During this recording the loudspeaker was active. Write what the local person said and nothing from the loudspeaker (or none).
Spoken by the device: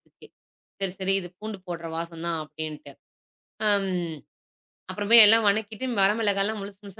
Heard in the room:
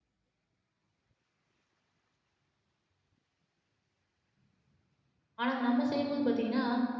ஆனா, அத நம்ம செய்யும்போது பார்த்தீங்கன்னா,